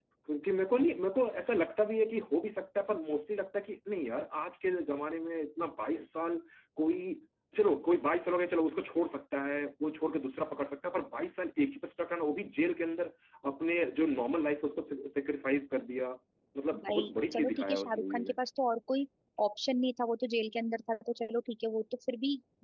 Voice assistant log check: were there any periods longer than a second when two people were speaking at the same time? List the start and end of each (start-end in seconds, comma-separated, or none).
16.8-18.4